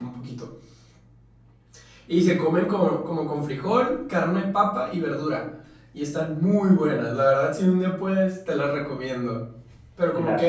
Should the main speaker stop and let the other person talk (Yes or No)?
Yes